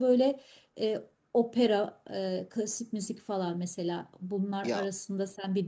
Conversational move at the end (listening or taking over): listening